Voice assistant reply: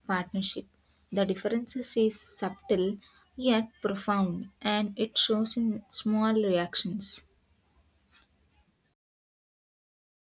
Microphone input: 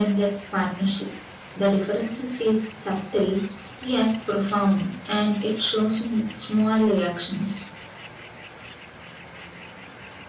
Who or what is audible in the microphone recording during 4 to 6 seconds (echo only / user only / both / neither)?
echo only